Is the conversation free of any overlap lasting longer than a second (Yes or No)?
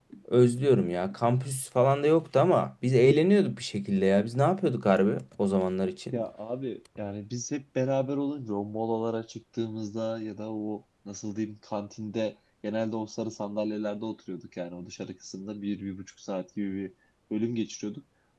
Yes